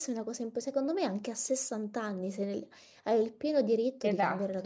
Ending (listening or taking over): listening